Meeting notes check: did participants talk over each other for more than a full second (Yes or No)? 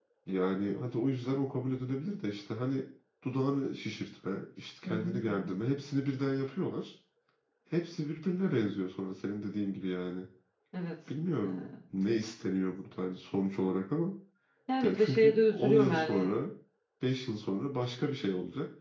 Yes